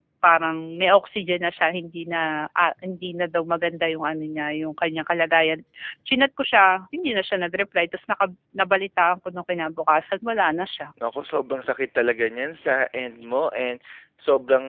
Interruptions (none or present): none